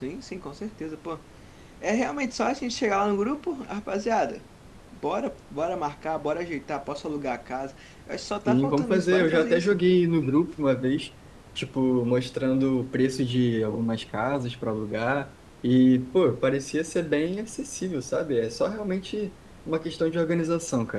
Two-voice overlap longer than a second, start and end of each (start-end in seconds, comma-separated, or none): 8.5-9.8